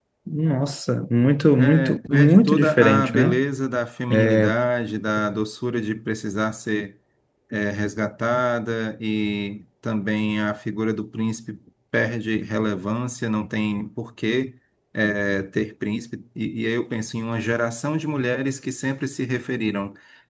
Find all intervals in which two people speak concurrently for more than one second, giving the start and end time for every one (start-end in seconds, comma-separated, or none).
1.6-3.4